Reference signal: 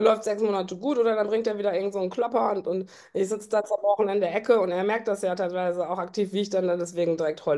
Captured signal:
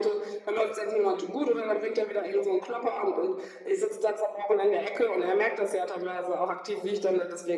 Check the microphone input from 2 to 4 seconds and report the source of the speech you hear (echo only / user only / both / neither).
echo only